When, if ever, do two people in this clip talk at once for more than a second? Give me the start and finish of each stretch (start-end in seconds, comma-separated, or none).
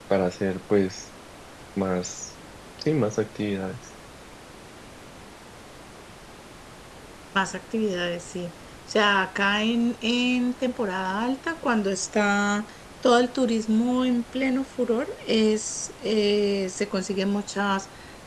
none